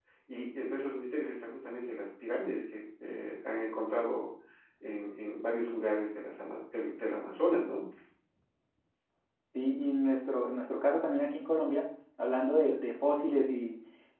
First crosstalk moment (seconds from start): none

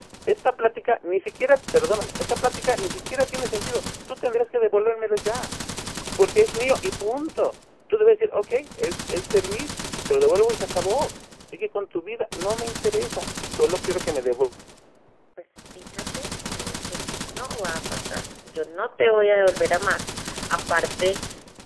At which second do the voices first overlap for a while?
none

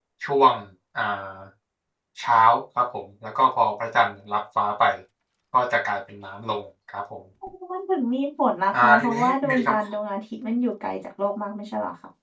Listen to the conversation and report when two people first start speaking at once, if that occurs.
9 s

